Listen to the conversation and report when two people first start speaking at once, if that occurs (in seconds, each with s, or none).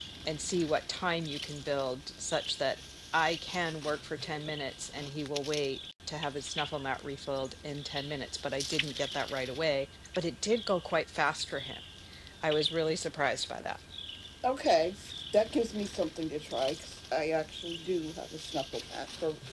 none